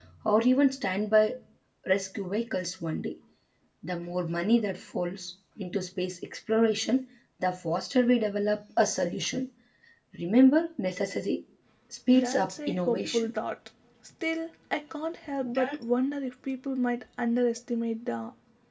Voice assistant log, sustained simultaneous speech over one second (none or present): present